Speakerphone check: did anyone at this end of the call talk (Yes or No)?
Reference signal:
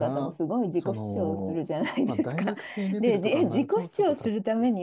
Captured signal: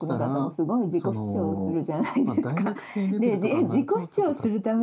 No